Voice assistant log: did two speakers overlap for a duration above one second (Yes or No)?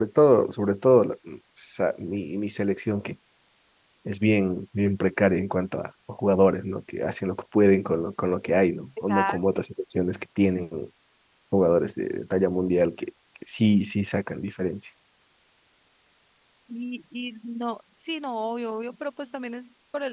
No